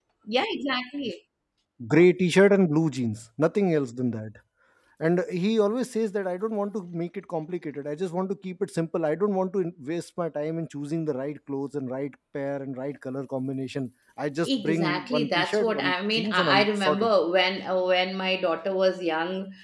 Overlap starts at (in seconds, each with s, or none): 14.4 s